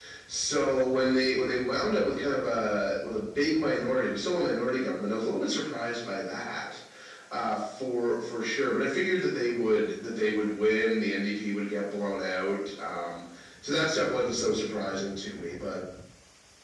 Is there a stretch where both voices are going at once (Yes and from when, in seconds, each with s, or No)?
No